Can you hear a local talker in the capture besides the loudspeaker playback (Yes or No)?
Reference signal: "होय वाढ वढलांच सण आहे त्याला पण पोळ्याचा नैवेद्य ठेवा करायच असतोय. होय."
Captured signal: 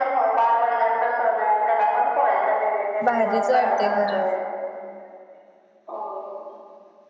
Yes